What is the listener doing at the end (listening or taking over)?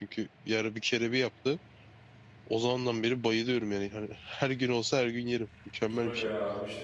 taking over